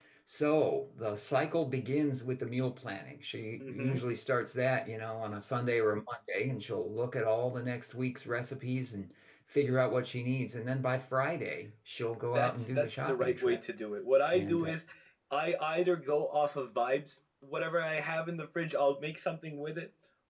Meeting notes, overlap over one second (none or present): present